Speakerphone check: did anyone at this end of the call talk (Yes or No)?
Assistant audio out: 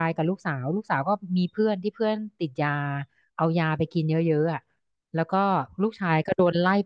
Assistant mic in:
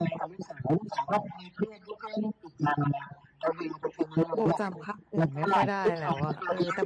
Yes